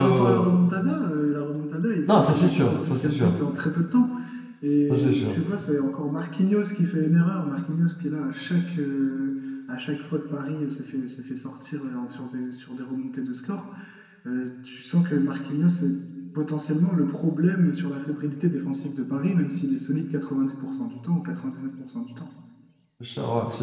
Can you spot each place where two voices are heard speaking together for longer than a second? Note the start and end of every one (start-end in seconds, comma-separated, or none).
2.1-3.3